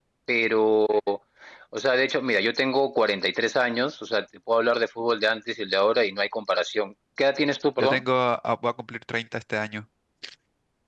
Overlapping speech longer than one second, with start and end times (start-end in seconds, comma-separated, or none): none